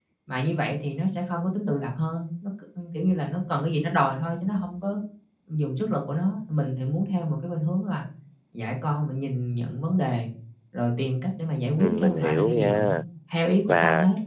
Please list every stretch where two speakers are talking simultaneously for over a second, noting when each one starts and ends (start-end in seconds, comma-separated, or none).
11.8-13.0